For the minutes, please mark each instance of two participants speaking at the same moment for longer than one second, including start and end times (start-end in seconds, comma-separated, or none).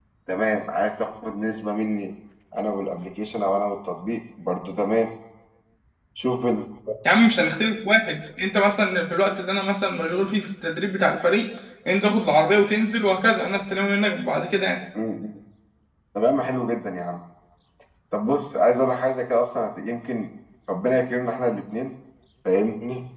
none